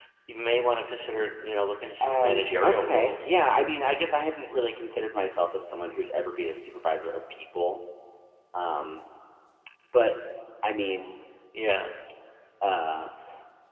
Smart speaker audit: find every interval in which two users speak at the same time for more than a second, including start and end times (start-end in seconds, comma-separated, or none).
2.0-3.3